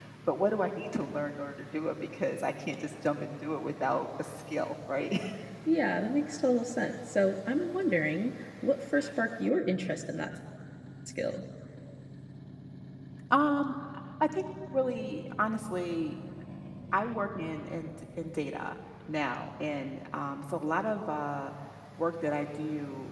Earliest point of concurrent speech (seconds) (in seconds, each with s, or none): none